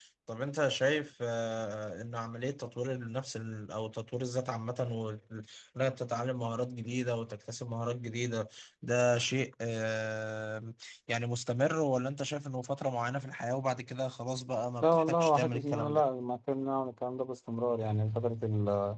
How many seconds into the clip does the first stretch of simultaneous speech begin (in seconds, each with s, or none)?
14.8 s